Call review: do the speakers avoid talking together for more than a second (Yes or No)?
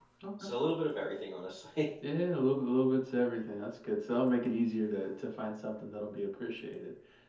Yes